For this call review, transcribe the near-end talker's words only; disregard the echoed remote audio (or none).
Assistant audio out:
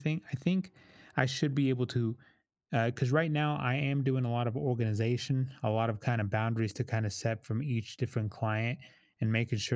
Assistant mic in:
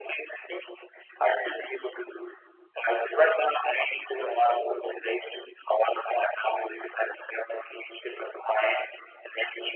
Right.